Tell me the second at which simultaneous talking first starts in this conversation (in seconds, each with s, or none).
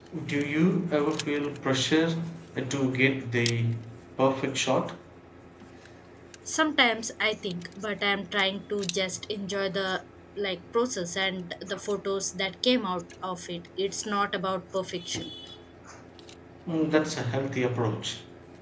none